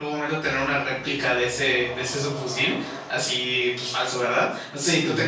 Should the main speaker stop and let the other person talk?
No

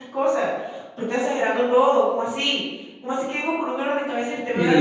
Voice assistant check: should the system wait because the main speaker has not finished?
No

